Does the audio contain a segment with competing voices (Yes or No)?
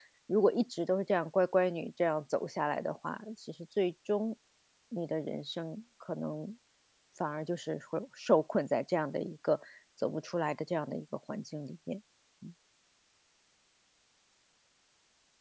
No